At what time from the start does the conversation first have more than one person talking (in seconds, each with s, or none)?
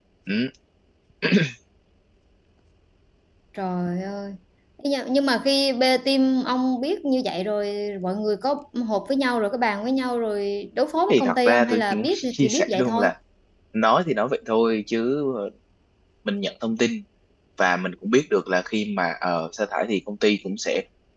11.1 s